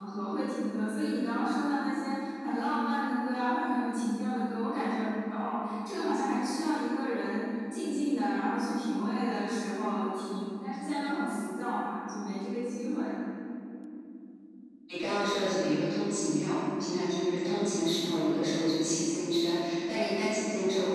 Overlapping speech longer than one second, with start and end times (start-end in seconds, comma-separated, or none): none